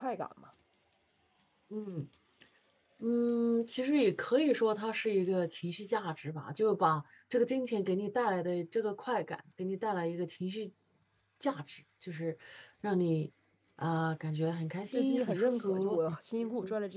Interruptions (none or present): present